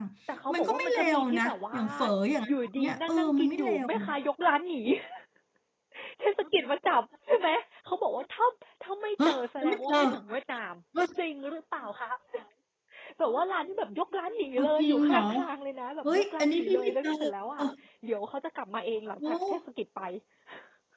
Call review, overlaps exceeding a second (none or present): present